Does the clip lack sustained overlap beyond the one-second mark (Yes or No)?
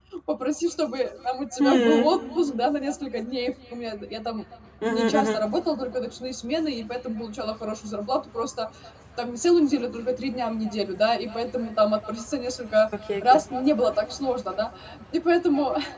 Yes